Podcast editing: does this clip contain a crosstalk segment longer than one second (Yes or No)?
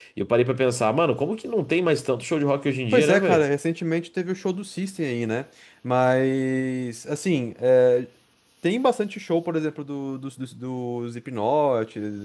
No